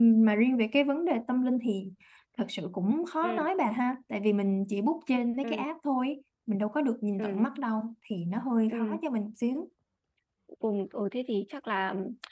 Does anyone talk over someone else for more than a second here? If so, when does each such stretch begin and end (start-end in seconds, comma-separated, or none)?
none